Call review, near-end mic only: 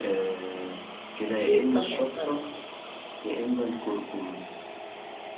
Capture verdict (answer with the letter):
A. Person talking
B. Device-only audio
A